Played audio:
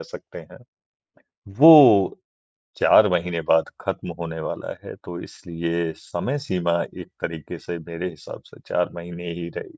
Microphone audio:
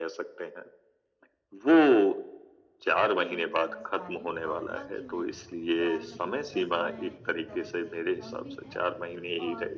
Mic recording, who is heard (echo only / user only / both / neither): both